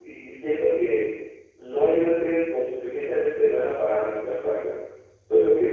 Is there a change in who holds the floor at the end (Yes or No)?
Yes